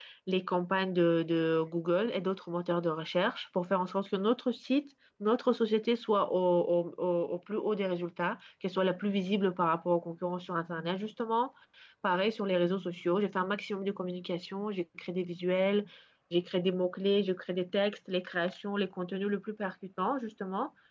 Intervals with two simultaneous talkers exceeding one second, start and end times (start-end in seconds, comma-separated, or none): none